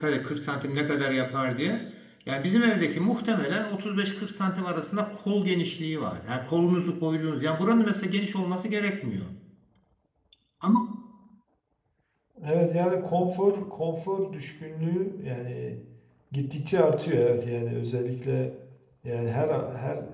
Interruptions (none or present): none